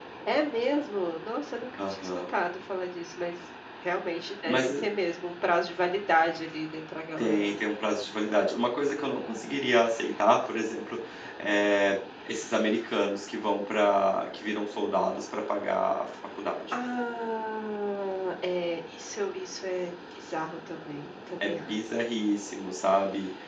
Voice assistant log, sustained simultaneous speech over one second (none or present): none